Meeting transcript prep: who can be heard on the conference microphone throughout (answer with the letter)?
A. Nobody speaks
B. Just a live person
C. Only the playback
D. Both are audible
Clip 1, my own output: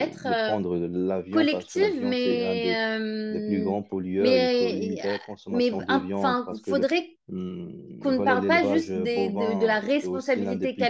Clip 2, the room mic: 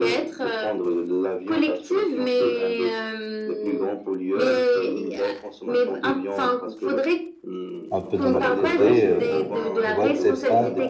D